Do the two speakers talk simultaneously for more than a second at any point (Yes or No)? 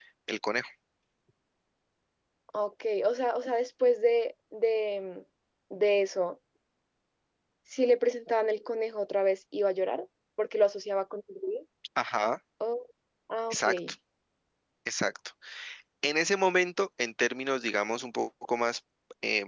No